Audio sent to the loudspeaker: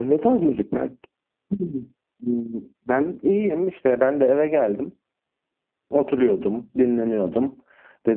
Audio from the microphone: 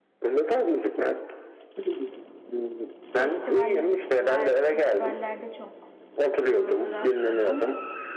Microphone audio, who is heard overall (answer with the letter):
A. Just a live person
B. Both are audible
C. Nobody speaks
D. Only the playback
B